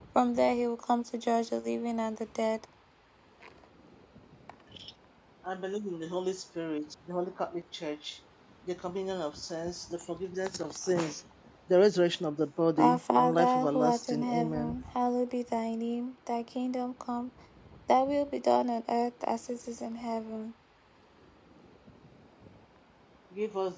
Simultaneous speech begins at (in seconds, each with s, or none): 12.8 s